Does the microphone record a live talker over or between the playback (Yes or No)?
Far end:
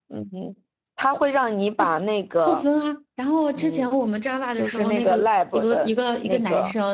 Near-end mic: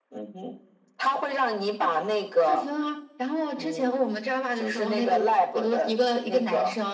No